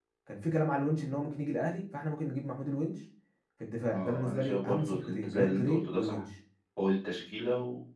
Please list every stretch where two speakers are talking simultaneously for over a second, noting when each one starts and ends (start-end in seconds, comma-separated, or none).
3.9-6.2